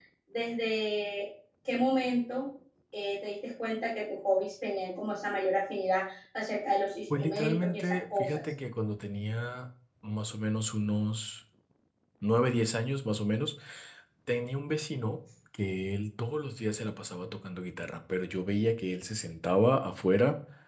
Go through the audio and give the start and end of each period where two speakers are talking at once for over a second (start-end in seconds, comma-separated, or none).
7.2-8.4